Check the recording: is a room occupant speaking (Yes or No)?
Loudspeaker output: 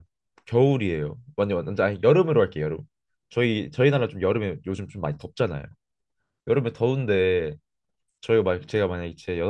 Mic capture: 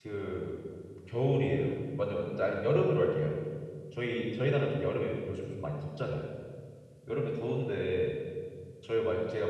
No